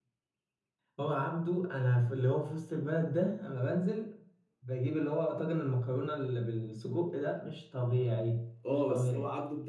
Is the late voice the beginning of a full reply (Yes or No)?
Yes